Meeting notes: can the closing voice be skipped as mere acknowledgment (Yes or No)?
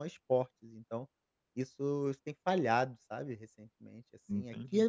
Yes